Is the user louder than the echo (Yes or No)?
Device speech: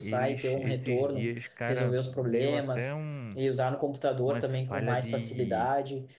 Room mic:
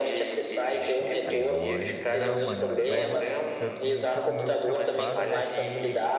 No